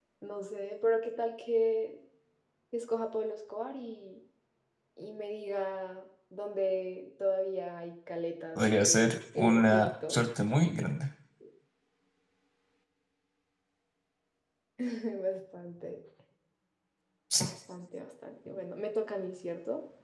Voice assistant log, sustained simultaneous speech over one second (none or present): present